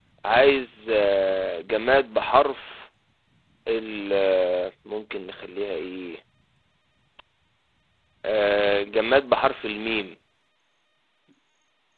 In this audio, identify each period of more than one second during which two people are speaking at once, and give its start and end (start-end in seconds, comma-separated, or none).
none